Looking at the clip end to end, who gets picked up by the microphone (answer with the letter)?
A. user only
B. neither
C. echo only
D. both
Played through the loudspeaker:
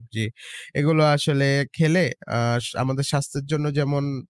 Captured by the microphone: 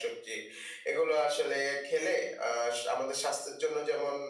C